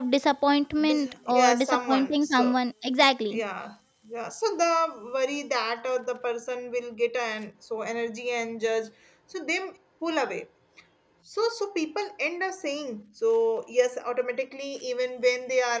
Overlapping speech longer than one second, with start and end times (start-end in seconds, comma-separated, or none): 0.8-2.6